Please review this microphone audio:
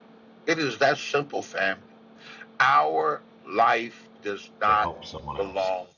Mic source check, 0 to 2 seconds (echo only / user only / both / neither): echo only